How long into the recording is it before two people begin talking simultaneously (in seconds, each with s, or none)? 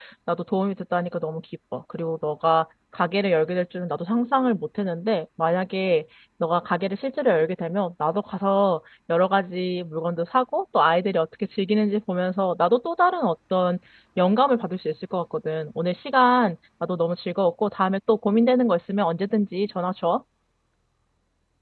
none